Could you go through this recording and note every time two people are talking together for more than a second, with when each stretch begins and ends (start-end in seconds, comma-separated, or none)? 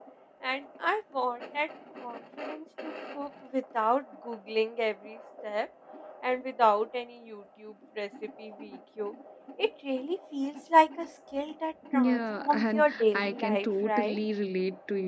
11.9-14.2